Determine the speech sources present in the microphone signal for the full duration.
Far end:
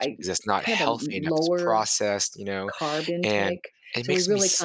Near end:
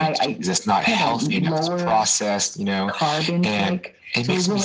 echo only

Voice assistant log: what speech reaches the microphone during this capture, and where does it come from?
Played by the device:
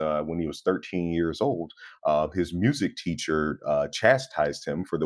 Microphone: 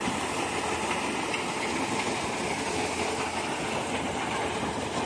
neither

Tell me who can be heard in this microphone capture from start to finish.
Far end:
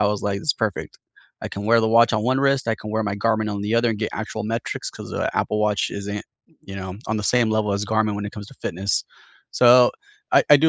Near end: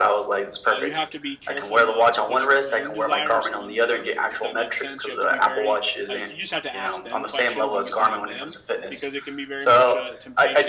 both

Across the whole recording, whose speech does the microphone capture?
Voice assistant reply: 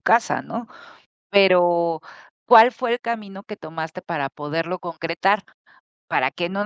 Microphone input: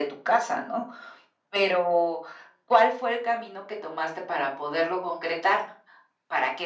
echo only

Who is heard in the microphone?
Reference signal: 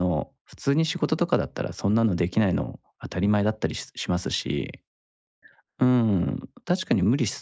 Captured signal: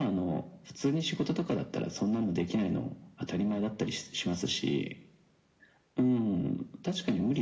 echo only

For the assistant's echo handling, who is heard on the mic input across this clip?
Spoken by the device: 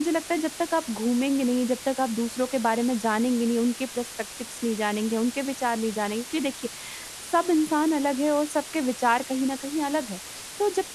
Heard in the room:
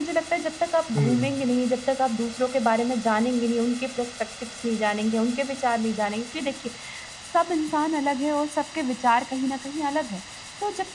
both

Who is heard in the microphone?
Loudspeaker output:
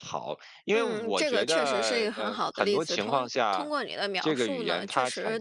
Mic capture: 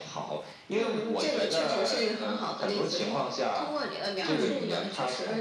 both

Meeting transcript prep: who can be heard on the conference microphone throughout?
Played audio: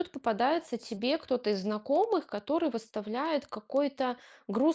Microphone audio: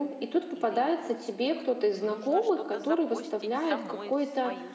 both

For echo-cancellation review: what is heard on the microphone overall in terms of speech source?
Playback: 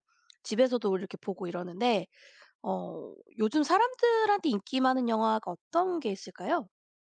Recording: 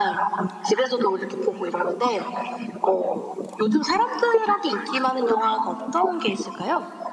echo only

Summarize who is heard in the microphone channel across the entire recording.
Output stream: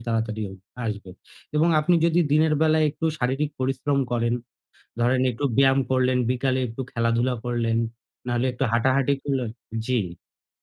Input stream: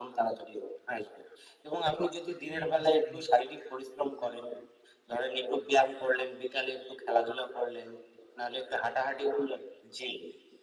both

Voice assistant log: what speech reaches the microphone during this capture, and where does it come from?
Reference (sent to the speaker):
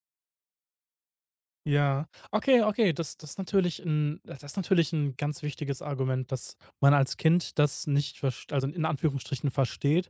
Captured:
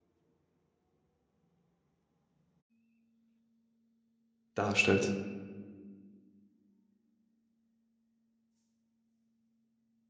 user only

